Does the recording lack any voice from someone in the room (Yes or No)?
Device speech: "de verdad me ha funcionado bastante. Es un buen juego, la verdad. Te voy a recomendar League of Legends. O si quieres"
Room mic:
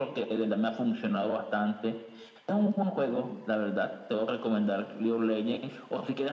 Yes